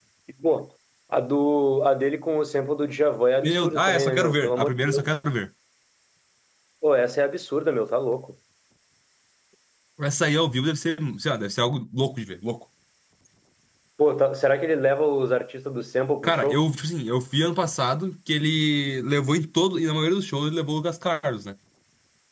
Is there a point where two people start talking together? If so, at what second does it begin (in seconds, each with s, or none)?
3.4 s